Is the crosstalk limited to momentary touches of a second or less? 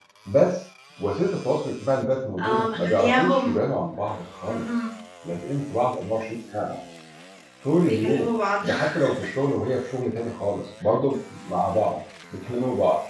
No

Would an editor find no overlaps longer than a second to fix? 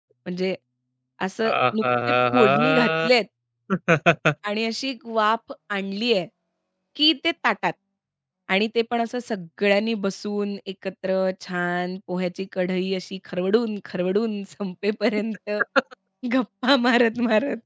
No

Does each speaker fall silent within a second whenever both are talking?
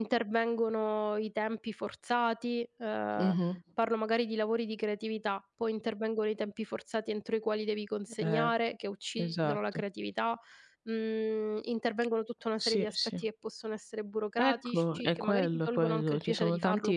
No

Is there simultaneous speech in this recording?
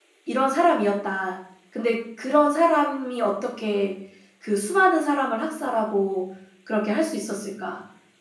No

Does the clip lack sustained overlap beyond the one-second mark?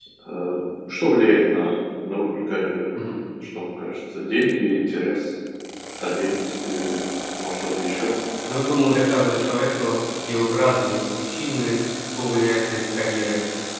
Yes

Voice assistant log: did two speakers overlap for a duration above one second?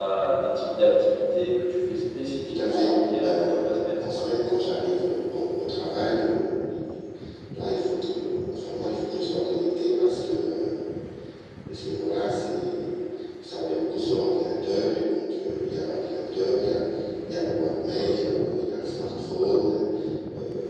Yes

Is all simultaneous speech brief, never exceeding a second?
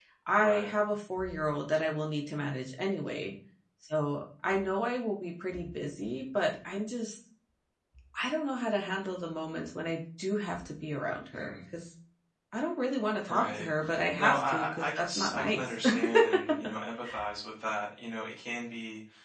No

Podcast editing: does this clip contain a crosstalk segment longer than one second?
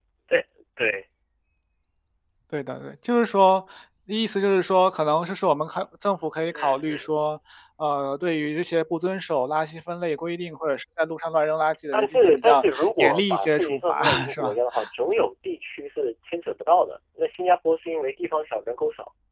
Yes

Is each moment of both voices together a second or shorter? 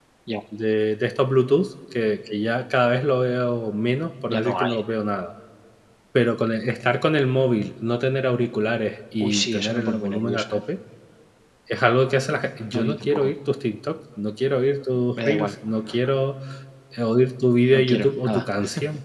No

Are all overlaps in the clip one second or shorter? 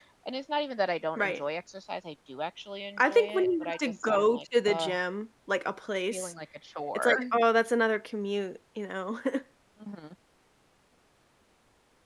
No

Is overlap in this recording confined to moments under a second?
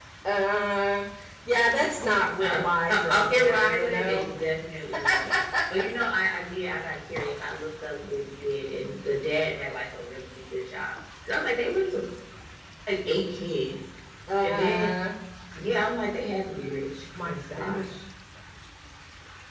No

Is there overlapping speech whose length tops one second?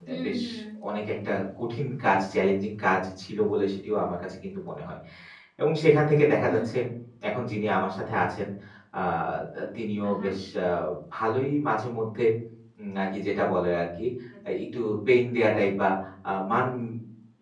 No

